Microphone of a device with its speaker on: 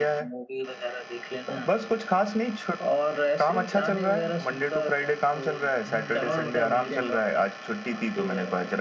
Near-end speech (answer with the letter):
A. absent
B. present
B